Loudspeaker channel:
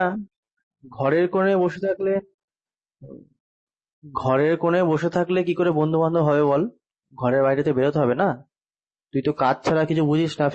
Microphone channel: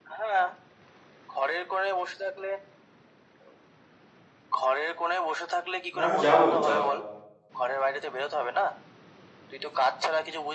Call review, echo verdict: present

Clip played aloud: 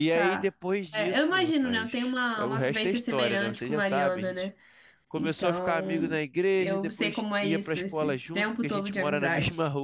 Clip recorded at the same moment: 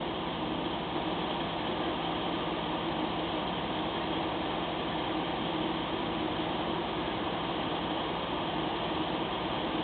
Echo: none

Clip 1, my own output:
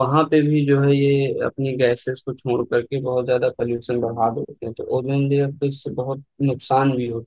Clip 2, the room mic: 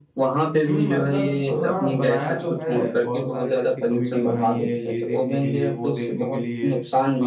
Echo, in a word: present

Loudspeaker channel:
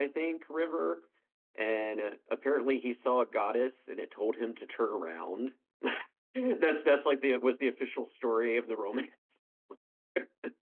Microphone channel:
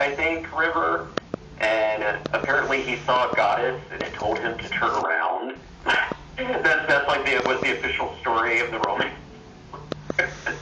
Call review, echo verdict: present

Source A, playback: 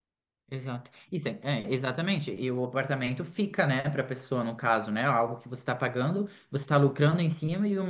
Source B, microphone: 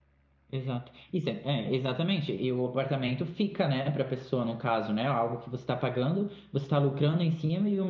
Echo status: present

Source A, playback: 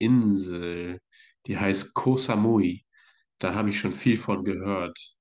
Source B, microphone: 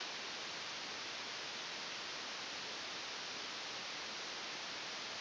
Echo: none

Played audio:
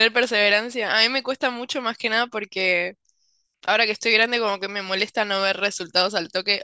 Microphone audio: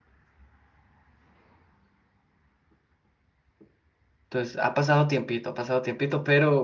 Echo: none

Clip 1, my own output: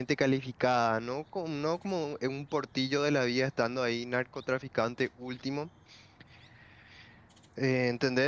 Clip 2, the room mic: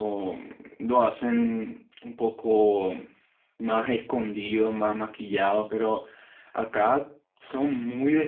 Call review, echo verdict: none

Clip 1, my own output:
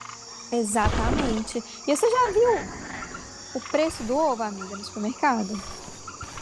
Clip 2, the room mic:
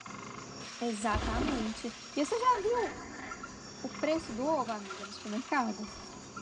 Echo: present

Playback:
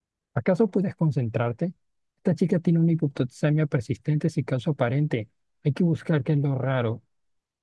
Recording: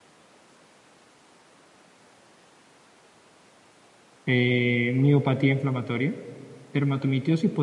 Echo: none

